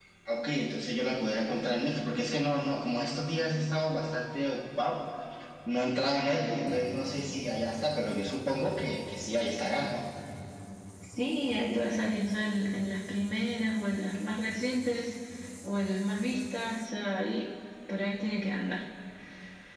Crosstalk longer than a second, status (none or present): none